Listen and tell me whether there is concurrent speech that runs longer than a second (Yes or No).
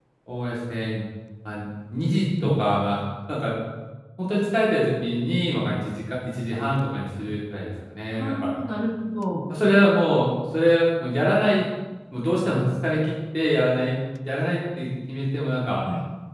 No